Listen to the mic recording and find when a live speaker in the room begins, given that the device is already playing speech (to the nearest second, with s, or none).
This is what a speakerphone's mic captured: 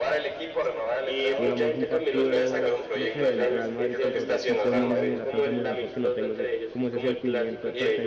1 s